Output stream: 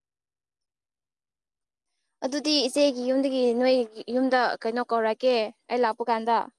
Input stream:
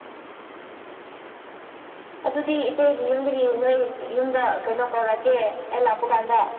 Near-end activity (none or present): none